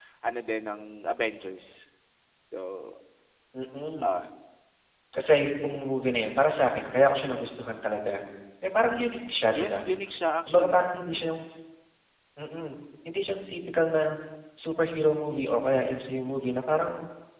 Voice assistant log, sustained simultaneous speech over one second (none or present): none